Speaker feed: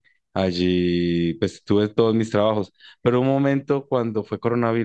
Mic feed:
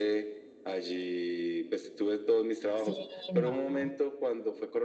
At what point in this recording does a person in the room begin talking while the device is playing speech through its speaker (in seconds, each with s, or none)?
2.7 s